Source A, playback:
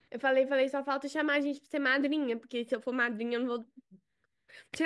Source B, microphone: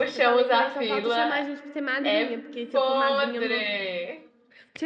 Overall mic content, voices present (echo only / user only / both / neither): both